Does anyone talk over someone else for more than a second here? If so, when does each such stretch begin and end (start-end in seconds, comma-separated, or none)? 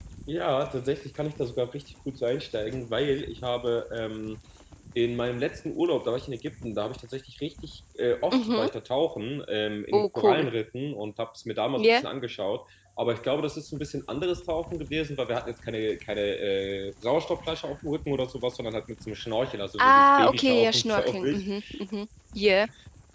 19.8-21.4